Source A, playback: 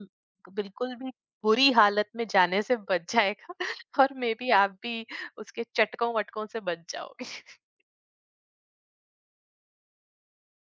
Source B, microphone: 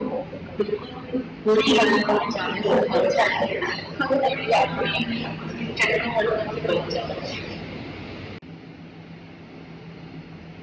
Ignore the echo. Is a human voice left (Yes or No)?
No